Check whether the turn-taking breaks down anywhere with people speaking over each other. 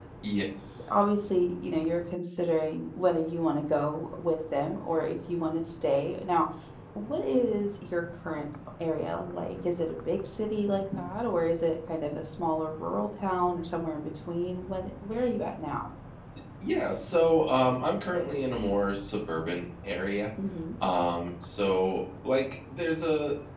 No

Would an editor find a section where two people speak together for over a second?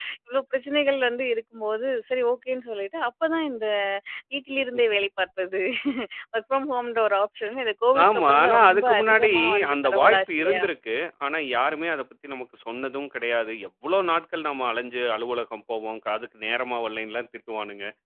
Yes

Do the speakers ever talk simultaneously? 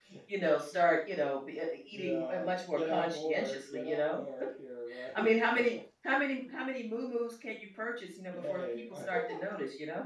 Yes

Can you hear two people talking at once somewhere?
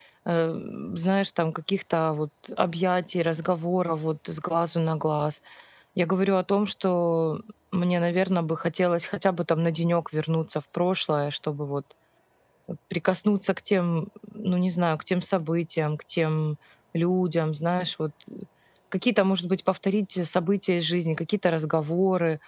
No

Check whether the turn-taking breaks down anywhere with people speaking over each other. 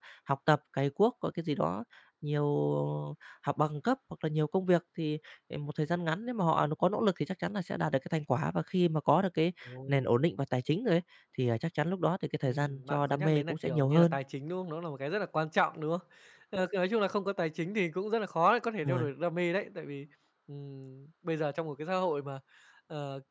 Yes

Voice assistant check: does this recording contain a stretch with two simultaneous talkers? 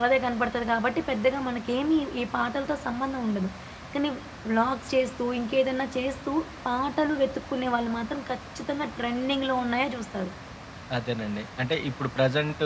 No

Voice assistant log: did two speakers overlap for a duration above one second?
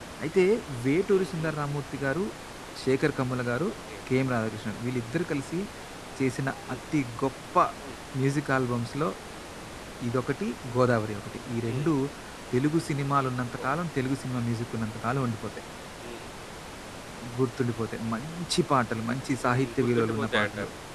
Yes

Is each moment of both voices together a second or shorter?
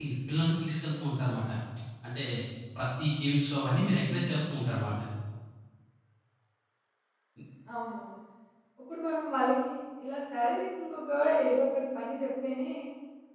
Yes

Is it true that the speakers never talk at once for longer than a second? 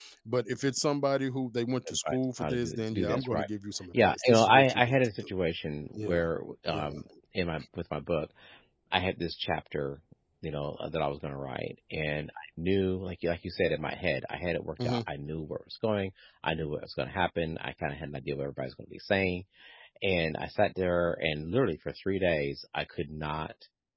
No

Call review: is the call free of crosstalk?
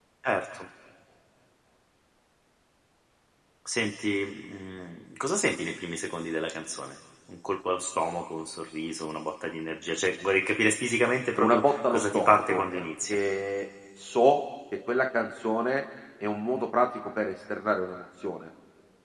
No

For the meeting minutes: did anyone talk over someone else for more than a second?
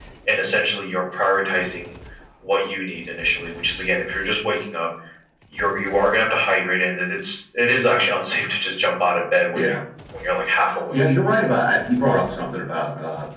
No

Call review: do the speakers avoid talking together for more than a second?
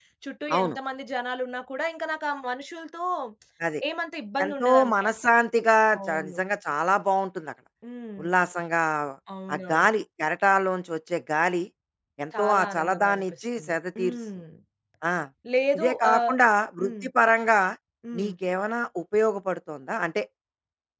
No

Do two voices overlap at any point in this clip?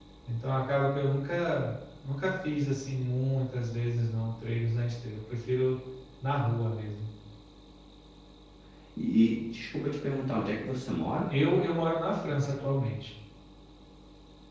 No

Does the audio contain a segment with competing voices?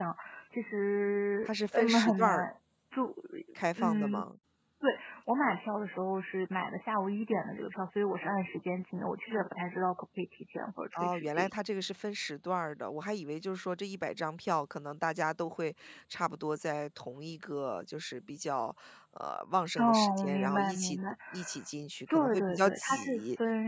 Yes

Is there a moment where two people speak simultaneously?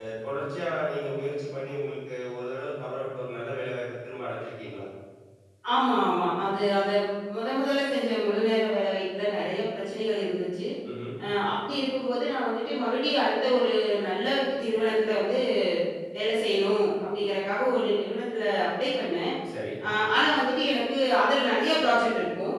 No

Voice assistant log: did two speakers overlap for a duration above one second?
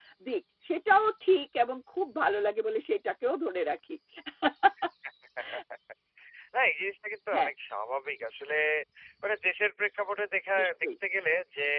No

